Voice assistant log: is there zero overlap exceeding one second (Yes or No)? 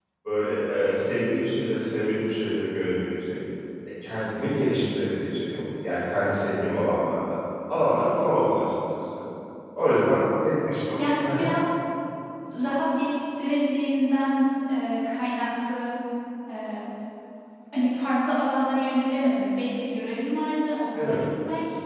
Yes